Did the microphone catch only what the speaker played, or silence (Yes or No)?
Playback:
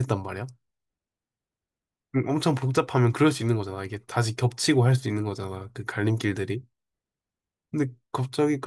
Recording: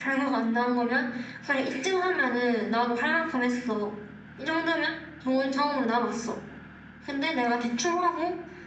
No